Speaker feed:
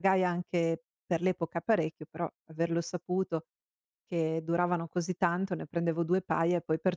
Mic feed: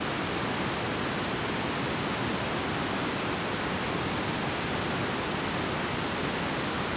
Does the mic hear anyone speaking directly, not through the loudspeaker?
No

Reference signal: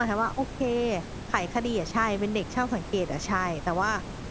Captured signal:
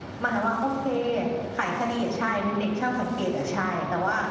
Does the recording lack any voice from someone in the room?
Yes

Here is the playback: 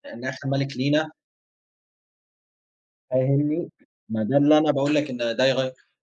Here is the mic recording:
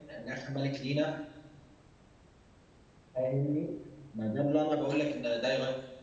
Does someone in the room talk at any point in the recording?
No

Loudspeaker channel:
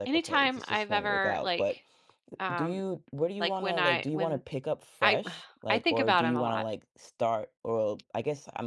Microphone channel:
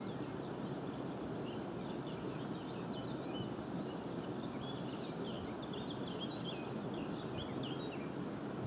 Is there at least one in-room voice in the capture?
No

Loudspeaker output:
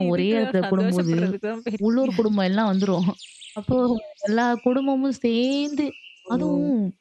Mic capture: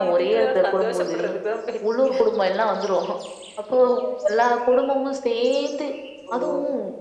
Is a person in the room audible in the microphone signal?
No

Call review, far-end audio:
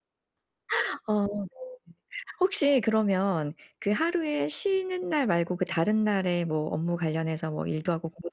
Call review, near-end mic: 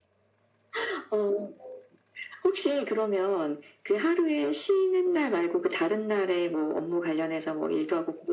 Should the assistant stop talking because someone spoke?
No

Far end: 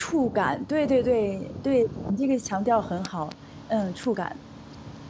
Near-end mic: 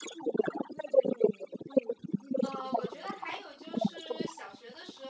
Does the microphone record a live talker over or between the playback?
Yes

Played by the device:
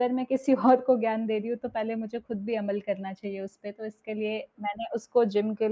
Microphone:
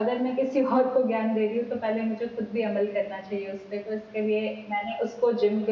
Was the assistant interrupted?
No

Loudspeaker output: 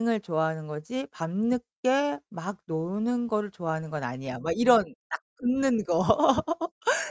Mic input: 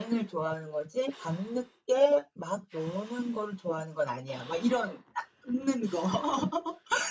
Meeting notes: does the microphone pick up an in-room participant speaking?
No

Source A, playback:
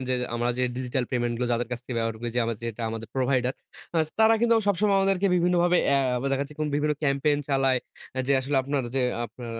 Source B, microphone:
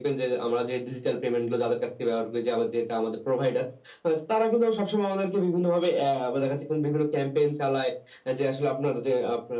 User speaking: No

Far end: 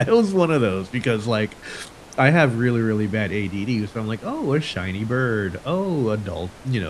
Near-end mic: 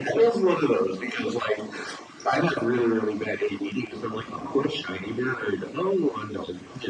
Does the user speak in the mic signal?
No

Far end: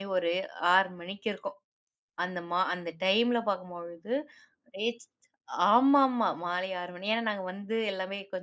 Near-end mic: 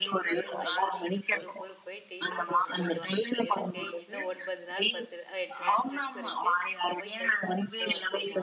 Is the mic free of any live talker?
No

